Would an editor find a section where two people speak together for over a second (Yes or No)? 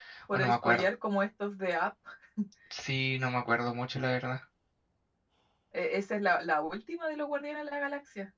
No